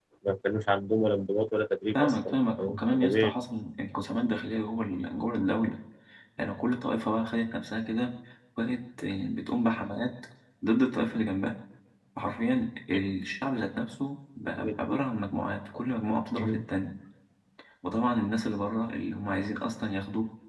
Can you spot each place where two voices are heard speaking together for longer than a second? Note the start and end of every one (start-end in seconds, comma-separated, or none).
1.9-3.3